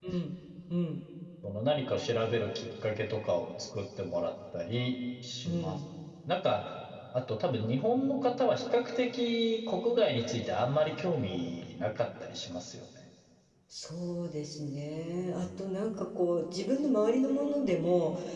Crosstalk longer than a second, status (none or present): none